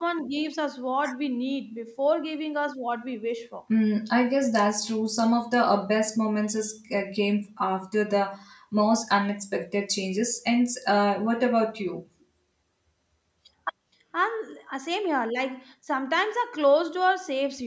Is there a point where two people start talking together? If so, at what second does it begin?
none

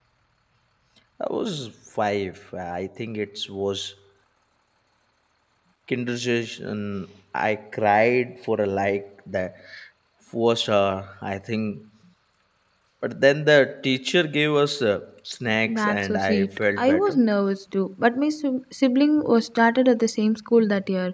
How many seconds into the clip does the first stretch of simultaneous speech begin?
15.7 s

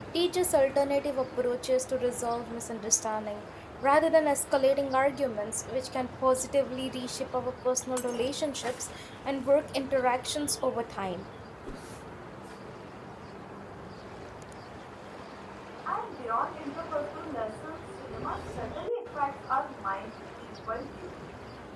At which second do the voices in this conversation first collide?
none

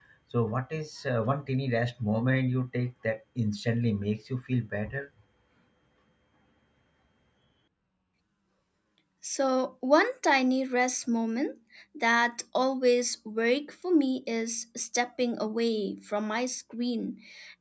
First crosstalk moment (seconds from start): none

